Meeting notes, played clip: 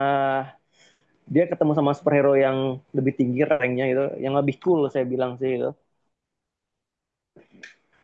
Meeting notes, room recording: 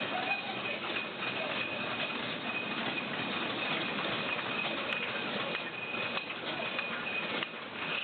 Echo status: none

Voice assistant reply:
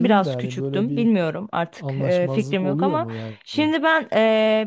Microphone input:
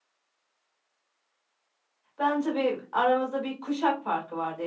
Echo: none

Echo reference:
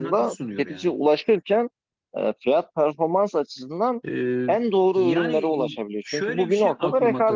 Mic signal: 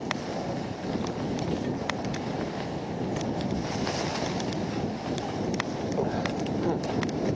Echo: none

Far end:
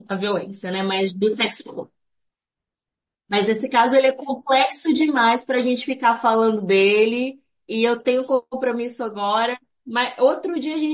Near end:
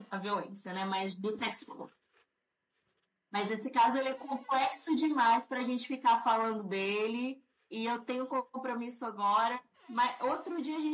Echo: present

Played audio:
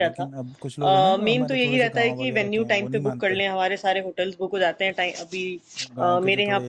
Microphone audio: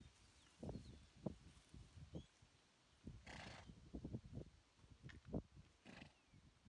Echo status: none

